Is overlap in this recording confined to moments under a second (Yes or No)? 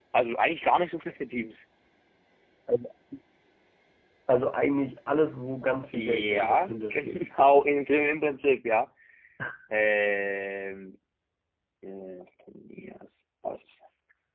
No